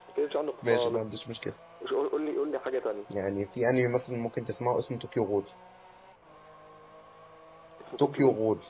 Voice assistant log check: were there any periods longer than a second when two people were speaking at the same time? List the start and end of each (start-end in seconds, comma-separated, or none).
none